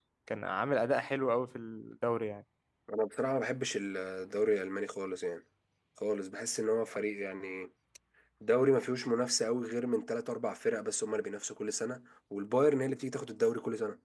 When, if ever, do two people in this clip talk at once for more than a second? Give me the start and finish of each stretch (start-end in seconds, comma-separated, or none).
none